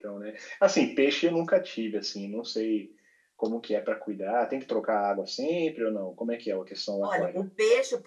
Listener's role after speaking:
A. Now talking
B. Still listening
A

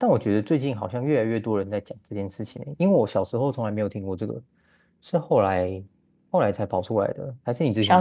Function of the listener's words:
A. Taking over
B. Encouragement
A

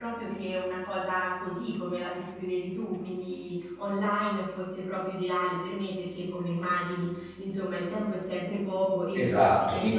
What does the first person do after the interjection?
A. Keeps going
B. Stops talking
B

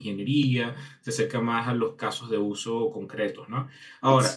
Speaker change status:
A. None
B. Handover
A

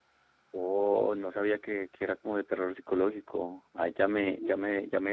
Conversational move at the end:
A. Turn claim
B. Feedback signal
B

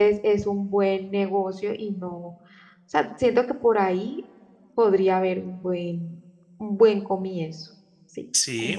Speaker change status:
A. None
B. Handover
B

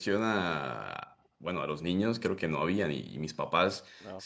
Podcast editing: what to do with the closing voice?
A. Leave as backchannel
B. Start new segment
A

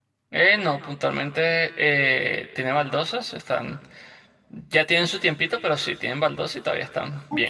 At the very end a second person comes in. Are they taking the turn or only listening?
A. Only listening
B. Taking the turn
B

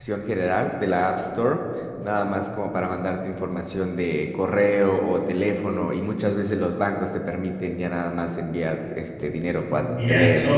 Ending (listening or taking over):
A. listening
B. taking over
B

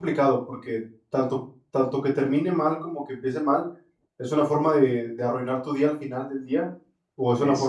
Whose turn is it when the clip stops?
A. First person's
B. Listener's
A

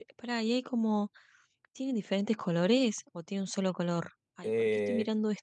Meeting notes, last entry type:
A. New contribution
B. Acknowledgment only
A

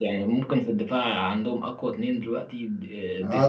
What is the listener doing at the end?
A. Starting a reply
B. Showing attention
A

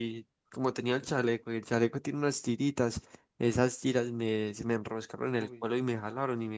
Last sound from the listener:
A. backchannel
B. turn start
A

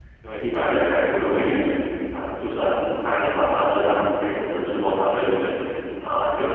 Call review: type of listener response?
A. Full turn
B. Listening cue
B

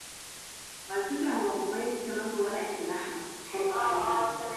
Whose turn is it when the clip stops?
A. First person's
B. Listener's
B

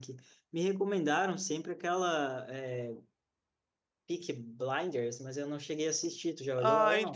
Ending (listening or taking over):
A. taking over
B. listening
A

